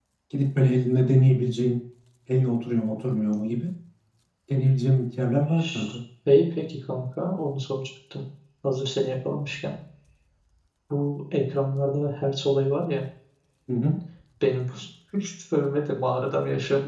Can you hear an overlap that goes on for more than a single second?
No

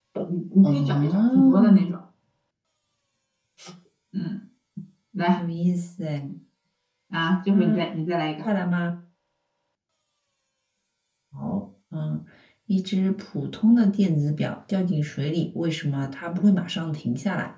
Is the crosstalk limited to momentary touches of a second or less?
No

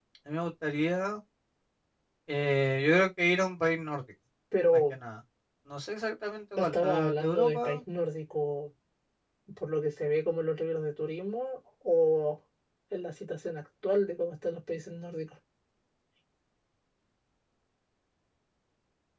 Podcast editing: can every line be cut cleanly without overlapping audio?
No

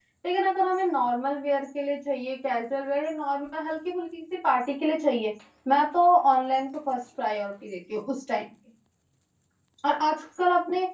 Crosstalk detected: No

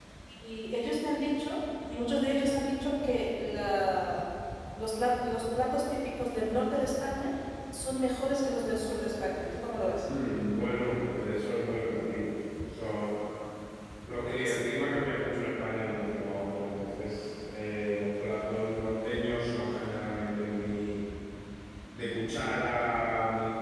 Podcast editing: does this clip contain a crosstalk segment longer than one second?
No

